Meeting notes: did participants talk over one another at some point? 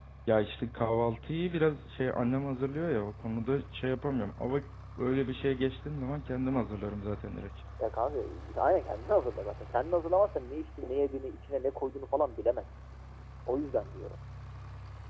No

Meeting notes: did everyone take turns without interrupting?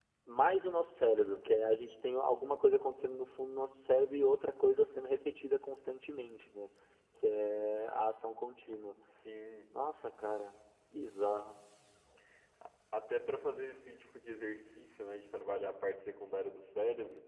Yes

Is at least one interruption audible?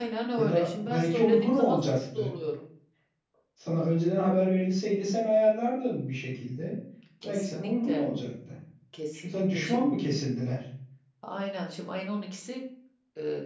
Yes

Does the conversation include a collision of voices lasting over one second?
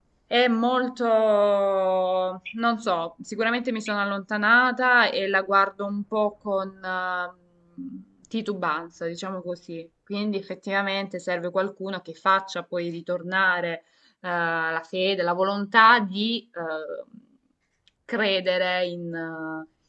No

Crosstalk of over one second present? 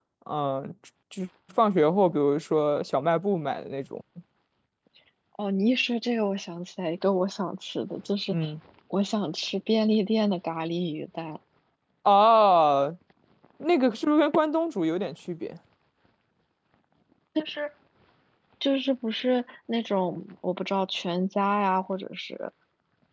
No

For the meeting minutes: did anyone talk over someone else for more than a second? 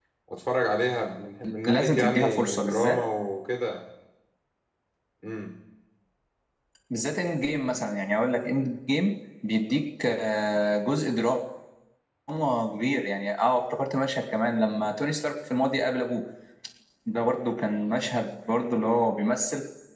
Yes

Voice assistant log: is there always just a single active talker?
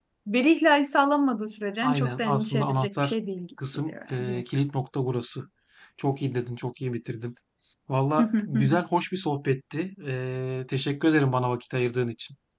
No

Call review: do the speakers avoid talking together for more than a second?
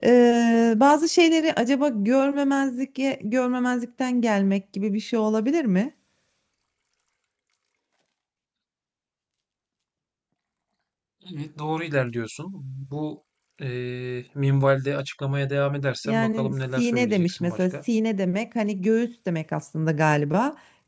No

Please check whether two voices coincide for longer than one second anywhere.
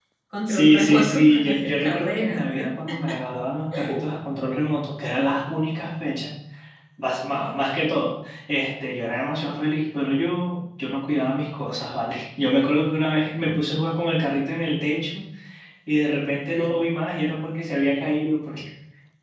Yes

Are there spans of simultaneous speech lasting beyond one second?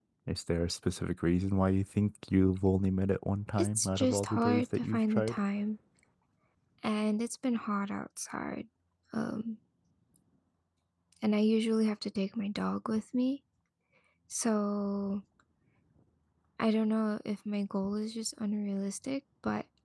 Yes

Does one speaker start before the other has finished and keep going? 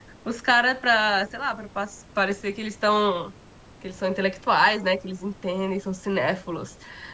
No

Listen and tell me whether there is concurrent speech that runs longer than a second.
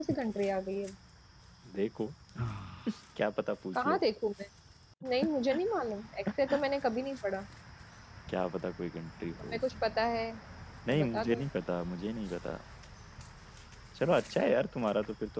No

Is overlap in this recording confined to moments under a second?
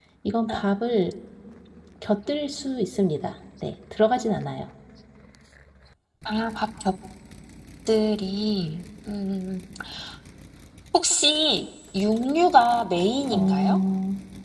Yes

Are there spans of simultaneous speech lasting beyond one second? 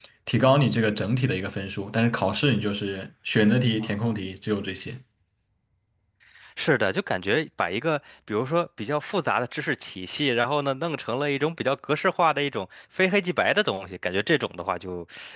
No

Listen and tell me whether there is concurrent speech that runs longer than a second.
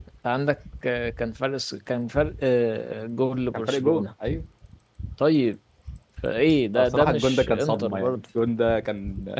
Yes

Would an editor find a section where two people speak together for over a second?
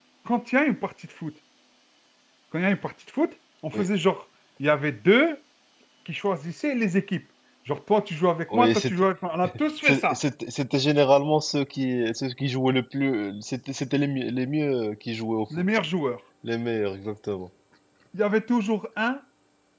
No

